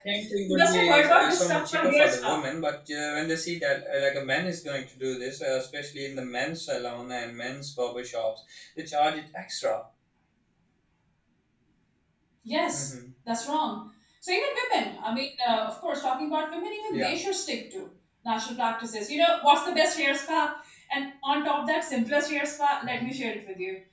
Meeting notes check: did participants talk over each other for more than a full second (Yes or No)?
Yes